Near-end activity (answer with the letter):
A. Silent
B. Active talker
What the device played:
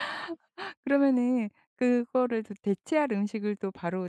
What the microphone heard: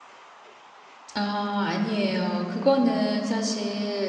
B